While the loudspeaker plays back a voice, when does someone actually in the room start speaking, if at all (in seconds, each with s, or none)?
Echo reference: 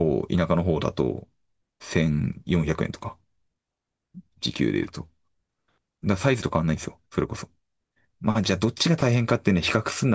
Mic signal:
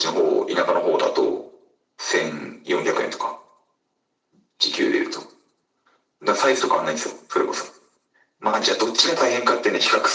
none